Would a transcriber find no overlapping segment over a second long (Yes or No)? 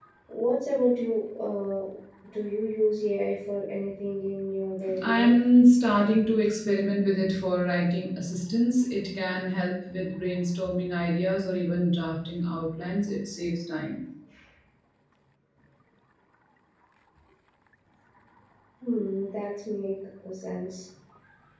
Yes